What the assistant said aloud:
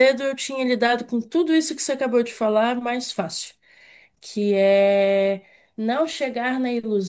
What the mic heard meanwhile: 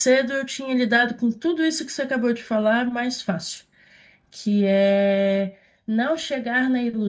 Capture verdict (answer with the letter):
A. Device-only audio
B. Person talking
A